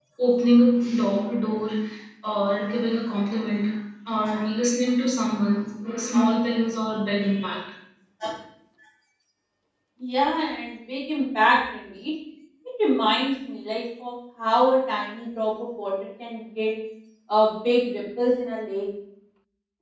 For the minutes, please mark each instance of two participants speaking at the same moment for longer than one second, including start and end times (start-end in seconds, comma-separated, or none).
none